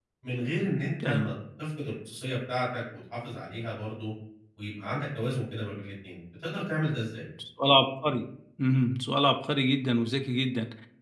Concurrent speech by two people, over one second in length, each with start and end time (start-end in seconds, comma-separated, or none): none